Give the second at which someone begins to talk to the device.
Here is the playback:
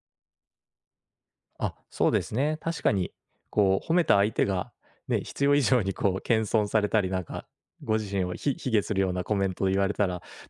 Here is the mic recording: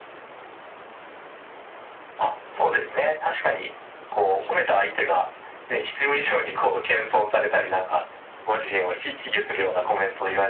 6 s

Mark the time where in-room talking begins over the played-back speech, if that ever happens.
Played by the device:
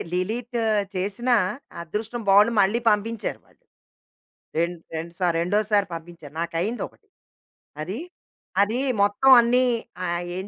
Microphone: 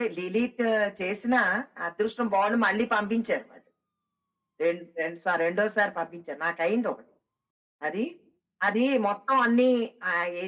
none

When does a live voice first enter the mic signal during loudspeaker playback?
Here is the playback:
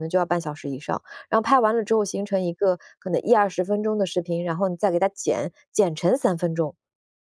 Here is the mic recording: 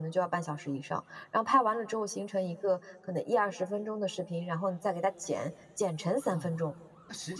6 s

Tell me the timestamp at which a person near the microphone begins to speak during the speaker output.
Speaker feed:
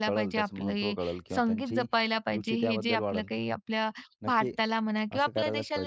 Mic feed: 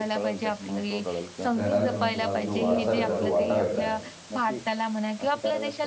2 s

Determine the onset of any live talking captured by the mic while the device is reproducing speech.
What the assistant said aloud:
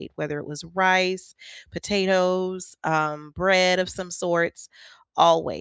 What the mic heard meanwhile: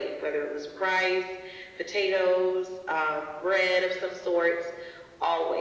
none

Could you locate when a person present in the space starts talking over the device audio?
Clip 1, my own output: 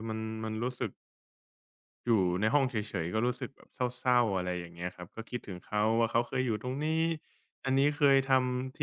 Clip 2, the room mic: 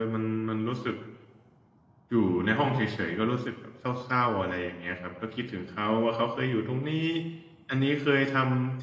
none

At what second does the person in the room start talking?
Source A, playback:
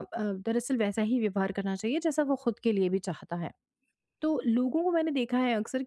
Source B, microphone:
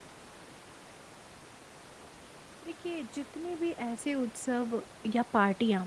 3 s

